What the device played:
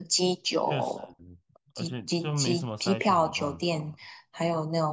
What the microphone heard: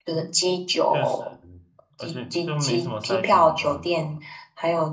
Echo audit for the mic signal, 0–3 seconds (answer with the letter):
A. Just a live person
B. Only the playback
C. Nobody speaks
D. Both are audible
B